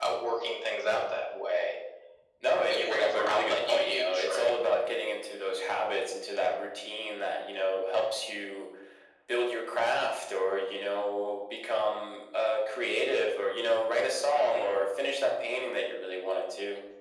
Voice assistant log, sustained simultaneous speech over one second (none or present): present